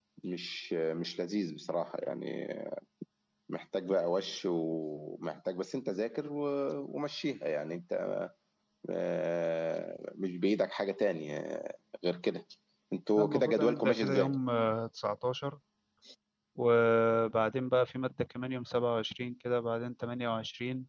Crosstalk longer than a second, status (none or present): present